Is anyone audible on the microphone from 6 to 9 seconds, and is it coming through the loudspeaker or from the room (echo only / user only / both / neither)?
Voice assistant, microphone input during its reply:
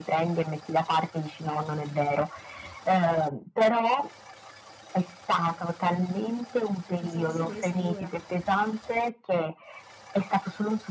both